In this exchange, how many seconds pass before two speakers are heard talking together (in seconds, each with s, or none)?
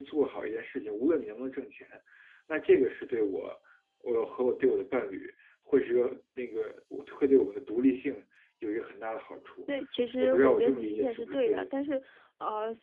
10.2 s